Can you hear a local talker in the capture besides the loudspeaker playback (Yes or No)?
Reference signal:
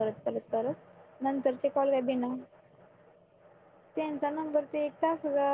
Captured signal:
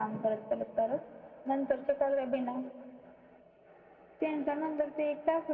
No